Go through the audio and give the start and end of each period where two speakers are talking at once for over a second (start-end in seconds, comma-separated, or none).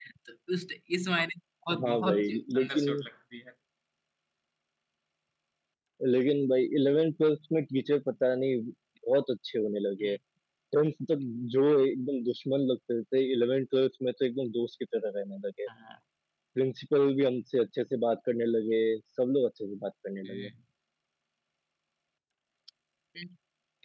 1.8-3.0